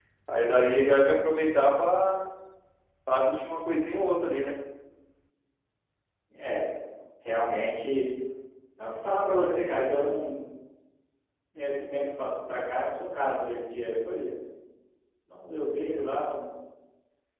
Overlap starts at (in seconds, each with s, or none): none